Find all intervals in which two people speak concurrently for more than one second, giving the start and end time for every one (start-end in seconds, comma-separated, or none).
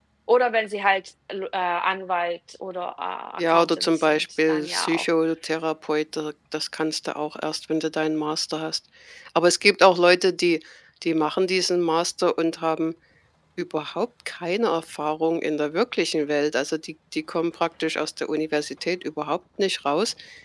3.4-5.0